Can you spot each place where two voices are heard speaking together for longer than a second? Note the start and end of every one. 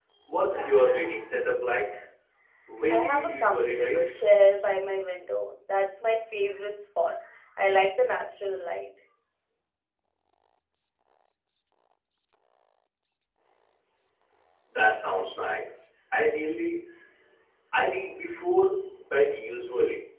2.9-4.1

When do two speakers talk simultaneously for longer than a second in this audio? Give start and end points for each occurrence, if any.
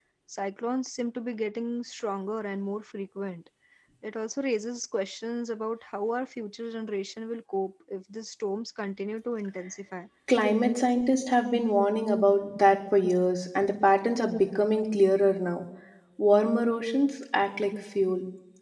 none

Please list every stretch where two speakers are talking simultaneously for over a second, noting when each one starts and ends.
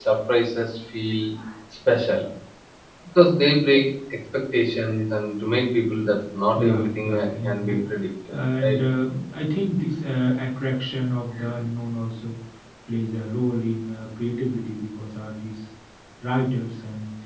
6.6-7.8

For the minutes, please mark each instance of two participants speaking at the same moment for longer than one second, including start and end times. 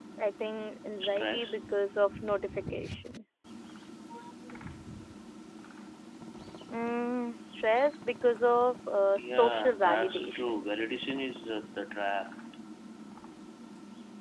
9.2-10.7

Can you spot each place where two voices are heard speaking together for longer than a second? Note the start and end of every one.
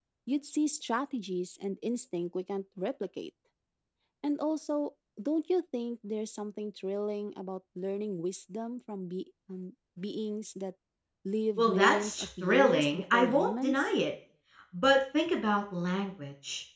11.6-13.9

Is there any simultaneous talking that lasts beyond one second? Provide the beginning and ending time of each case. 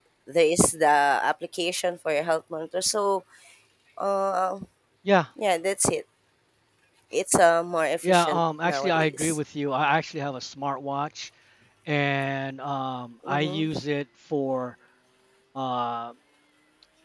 8.0-9.4

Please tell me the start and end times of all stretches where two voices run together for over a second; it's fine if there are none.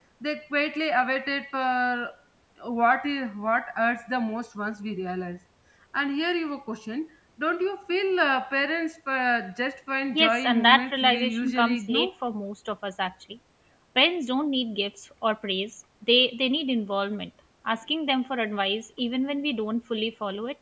10.1-12.1

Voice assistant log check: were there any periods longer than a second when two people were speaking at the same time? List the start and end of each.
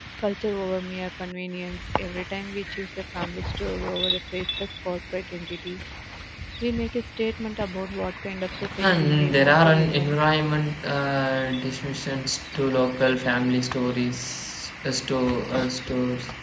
8.8-10.2

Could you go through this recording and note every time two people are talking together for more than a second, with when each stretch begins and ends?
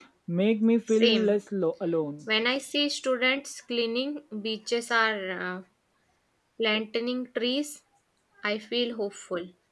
none

